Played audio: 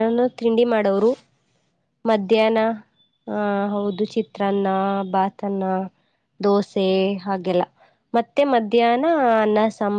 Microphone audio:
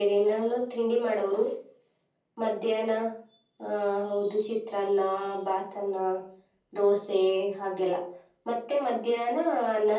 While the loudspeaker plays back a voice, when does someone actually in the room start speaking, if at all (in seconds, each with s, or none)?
none